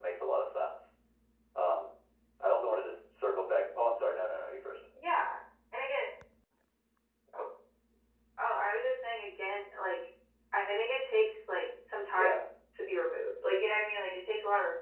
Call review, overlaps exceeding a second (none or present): none